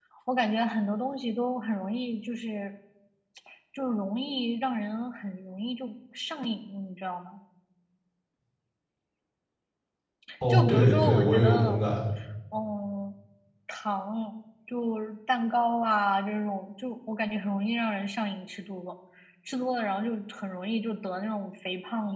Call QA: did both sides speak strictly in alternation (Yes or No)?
No